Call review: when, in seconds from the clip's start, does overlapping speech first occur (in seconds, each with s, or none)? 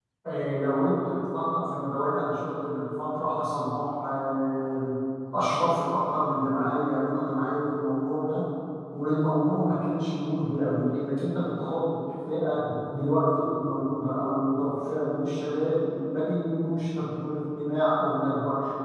none